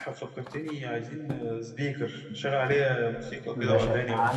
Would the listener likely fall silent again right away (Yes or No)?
No